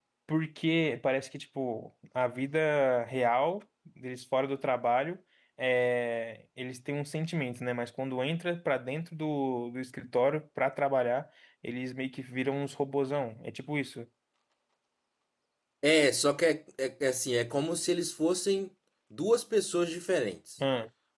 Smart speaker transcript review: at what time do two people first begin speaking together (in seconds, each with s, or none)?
none